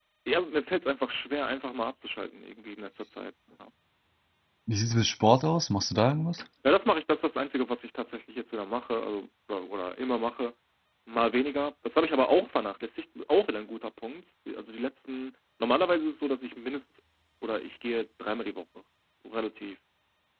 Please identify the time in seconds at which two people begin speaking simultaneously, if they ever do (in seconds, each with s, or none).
none